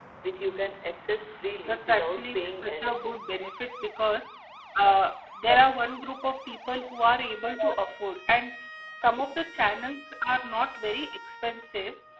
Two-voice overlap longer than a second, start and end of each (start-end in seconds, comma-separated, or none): 1.7-3.1